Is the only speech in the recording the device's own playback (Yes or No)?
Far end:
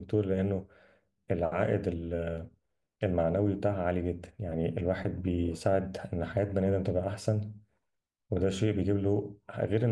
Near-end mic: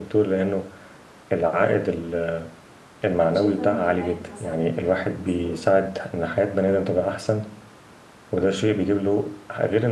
No